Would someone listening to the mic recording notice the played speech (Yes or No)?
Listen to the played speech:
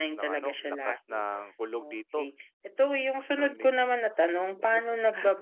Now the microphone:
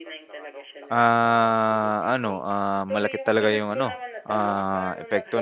Yes